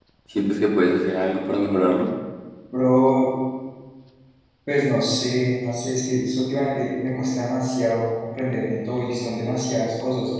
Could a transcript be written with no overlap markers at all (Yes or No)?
Yes